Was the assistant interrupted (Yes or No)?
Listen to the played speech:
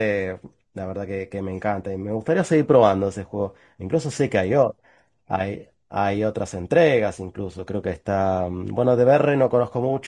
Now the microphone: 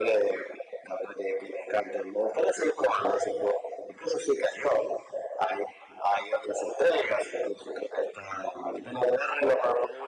No